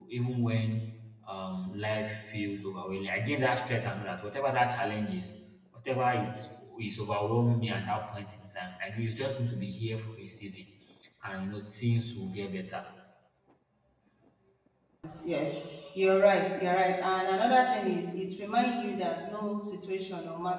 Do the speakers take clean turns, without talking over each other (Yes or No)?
Yes